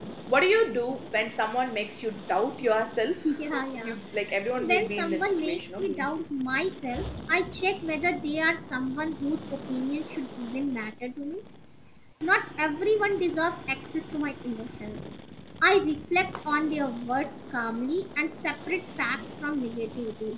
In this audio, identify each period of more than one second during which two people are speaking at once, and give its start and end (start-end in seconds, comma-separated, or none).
4.5-6.2